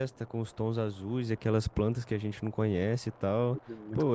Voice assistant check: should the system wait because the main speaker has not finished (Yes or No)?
No